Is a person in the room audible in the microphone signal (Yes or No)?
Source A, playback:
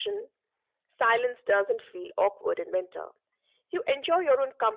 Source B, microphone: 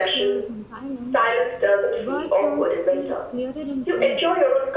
Yes